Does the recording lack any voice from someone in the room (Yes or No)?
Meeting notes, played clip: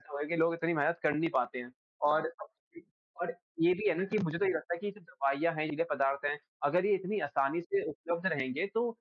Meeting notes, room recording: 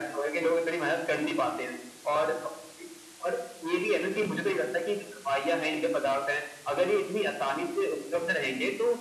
Yes